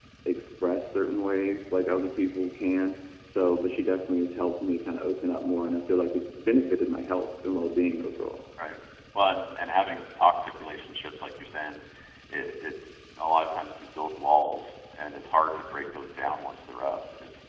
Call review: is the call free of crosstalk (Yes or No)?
Yes